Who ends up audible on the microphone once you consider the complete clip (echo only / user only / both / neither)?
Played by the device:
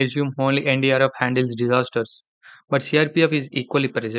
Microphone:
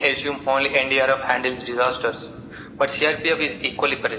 echo only